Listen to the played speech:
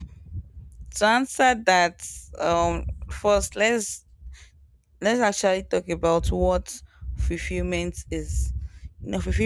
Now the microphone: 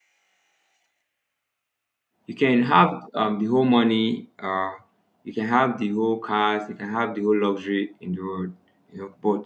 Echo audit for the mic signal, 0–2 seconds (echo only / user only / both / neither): neither